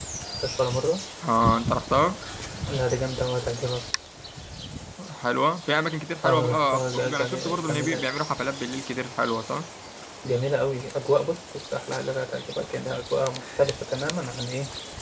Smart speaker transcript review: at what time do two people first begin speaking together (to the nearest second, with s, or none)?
6 s